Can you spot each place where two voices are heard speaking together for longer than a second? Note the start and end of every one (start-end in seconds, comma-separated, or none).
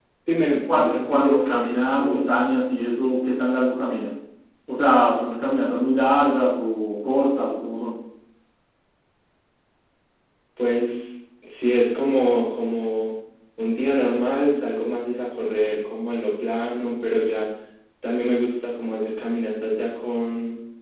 0.7-2.3